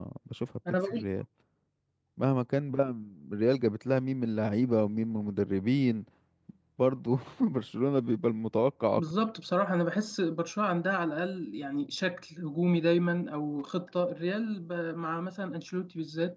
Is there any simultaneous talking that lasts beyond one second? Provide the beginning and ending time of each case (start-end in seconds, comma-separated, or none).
none